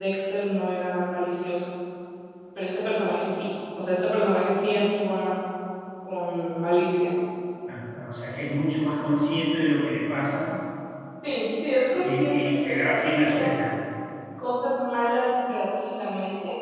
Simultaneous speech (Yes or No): Yes